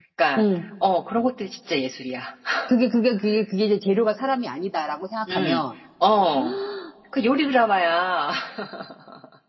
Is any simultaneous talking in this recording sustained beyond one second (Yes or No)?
No